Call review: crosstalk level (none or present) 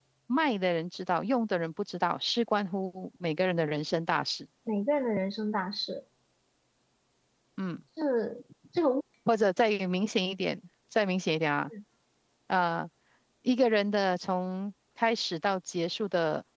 none